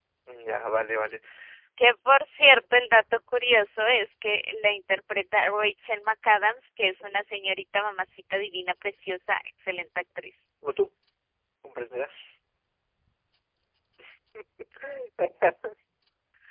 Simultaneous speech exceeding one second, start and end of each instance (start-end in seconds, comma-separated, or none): none